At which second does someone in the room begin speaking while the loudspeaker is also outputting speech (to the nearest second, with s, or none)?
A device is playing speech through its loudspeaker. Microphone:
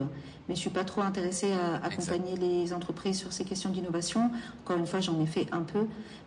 2 s